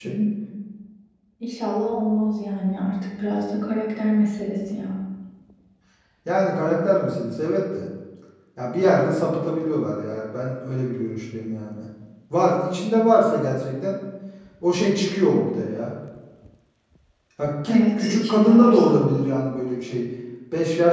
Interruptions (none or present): present